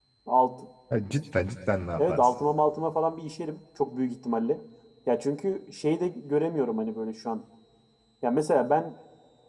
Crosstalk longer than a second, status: none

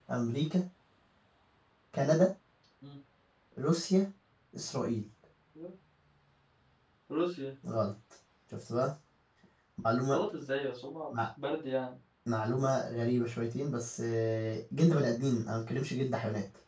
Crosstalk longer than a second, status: none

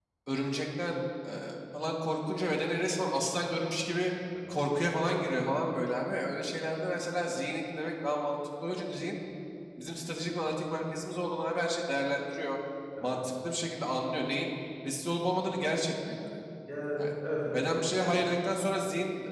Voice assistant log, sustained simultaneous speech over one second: none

